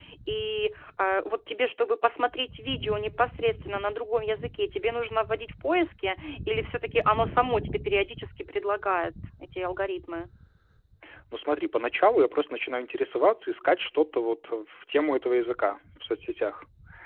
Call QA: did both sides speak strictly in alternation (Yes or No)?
Yes